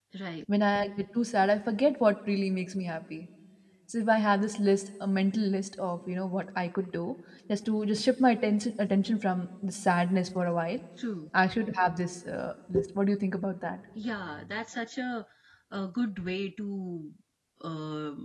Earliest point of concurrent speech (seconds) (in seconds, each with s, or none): none